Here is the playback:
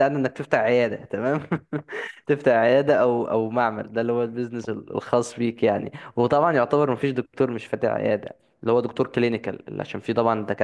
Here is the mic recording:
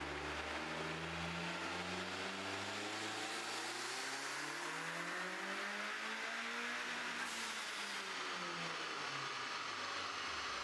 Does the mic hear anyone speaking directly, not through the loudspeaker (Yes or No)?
No